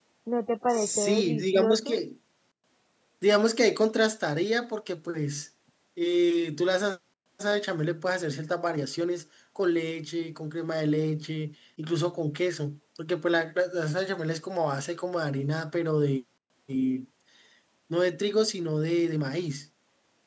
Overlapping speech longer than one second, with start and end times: 0.7-2.0

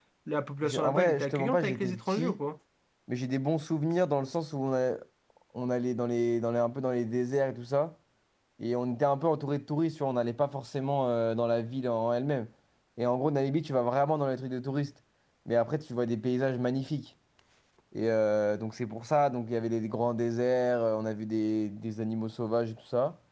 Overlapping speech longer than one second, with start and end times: 0.6-2.4

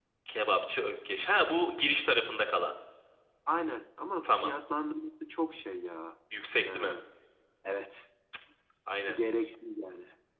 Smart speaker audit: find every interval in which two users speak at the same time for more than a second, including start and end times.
none

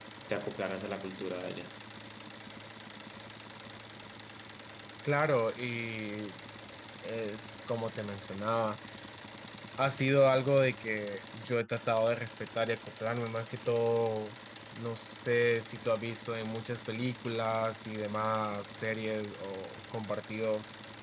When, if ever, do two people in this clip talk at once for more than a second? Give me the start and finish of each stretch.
none

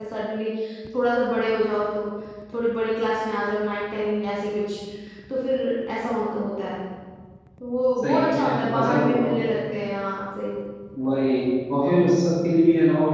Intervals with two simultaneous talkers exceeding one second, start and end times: 8.0-9.4

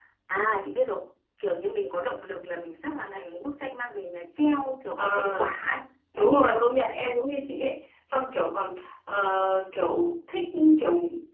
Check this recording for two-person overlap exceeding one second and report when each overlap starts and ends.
none

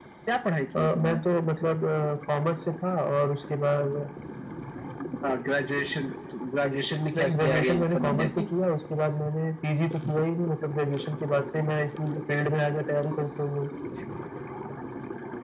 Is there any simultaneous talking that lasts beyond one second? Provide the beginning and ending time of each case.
7.2-8.5

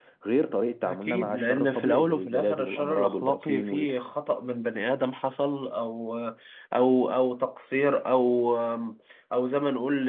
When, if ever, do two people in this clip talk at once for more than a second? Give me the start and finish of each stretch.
0.9-3.7

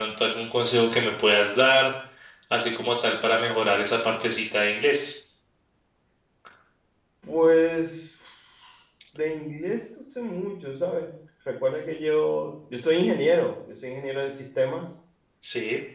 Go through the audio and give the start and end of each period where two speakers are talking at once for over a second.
none

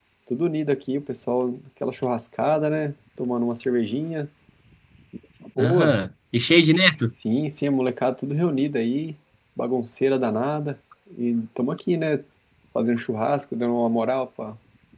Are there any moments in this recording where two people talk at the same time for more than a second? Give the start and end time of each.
none

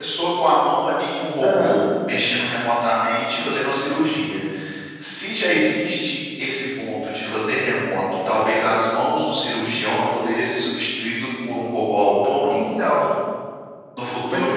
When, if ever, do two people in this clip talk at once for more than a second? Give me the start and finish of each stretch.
none

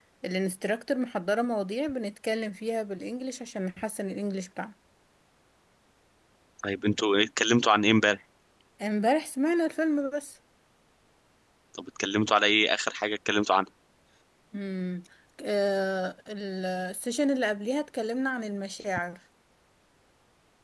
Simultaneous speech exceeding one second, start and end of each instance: none

